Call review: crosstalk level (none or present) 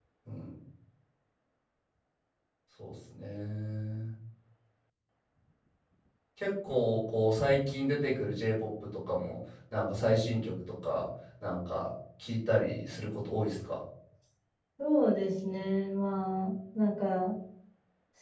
none